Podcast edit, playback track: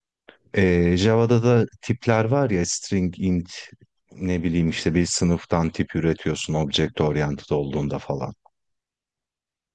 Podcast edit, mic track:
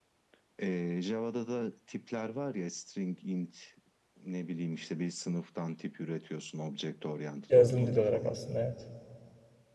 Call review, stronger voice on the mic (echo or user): user